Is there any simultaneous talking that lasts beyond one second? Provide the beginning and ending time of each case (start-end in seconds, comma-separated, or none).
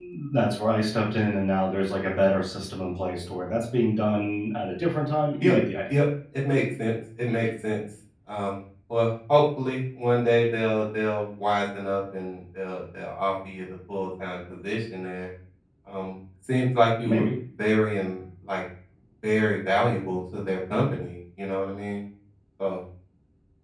none